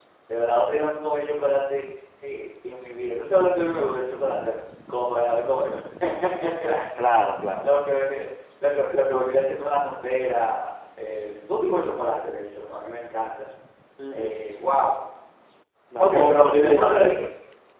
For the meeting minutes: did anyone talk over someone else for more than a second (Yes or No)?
Yes